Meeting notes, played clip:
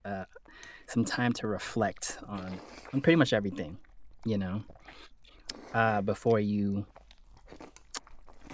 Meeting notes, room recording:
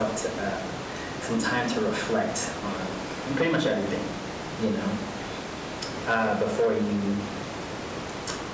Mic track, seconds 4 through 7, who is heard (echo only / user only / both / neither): echo only